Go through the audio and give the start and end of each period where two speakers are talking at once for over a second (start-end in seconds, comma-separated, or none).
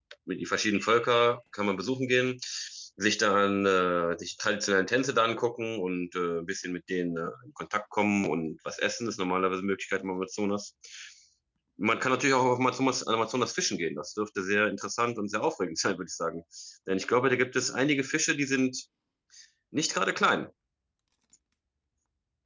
none